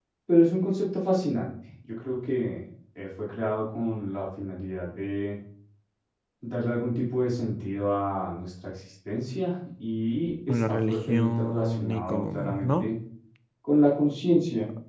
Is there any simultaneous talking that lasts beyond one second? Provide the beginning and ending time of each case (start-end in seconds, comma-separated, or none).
10.5-12.9